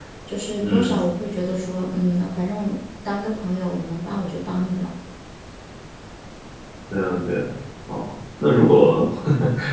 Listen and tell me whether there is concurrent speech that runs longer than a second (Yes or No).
No